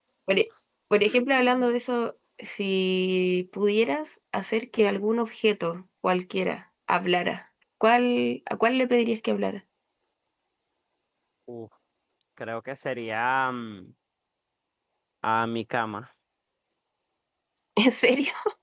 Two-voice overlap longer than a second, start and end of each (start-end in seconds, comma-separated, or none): none